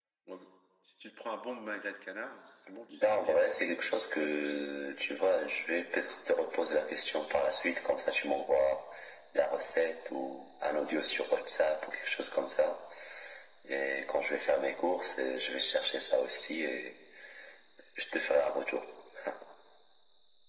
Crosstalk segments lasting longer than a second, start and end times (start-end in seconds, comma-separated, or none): 3.0-4.7